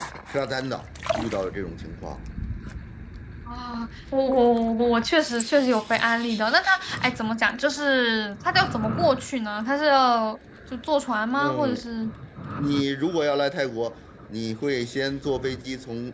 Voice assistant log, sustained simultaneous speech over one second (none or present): none